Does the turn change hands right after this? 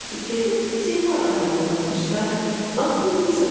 No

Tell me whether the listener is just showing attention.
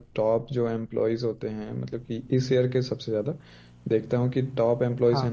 Yes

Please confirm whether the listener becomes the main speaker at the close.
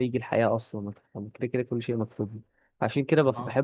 No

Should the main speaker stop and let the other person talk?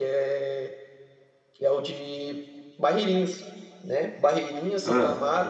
No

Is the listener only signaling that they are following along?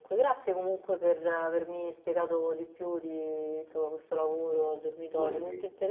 Yes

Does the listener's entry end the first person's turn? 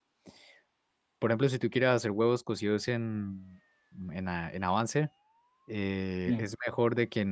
No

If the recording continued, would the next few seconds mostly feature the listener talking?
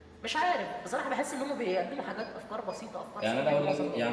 Yes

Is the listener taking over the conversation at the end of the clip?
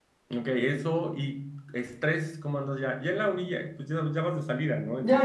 Yes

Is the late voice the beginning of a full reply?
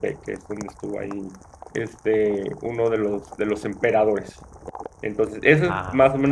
No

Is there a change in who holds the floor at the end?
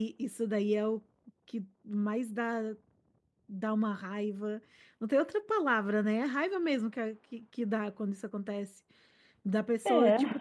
No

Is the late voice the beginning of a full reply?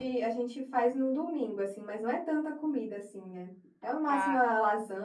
No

